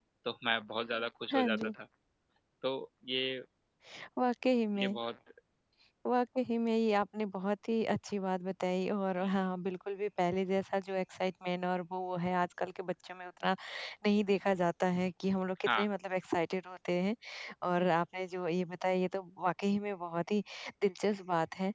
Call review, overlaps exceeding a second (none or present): none